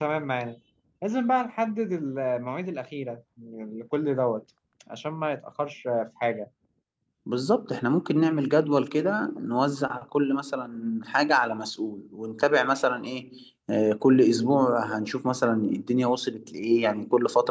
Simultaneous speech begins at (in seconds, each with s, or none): none